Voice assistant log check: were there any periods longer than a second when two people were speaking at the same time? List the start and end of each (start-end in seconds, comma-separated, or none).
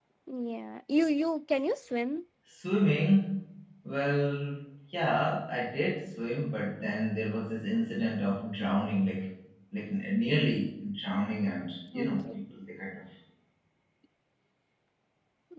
none